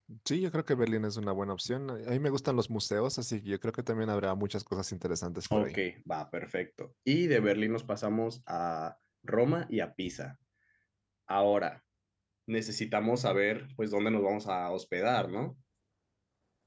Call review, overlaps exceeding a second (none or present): none